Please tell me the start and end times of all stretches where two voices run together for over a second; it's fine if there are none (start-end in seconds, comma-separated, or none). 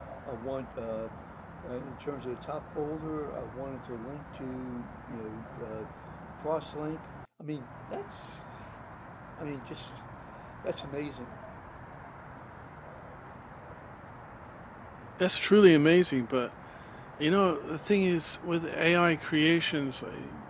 none